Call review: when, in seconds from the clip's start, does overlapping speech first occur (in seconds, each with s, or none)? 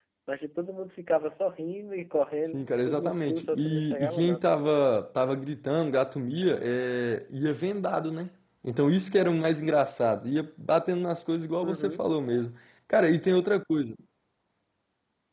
2.5 s